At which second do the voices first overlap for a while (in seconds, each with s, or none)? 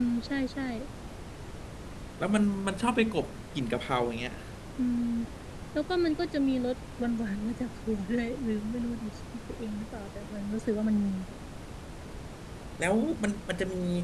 none